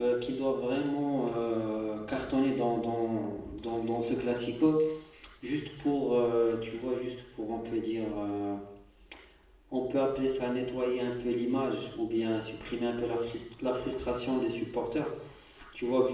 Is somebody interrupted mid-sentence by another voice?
No

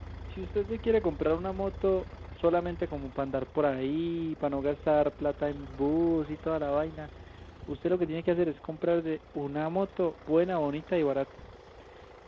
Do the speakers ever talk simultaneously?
No

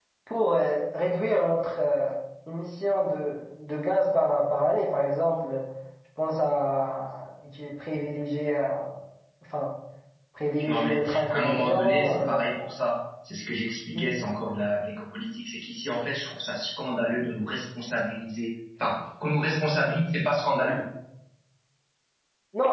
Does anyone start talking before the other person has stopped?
Yes, from 10.7 s

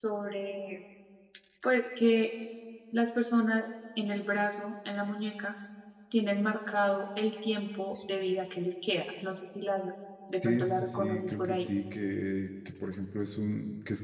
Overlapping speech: Yes, from 10.4 s

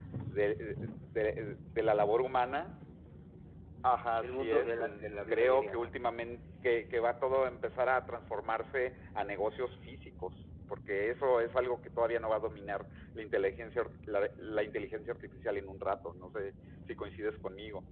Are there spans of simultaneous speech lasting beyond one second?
Yes, from 4.2 s

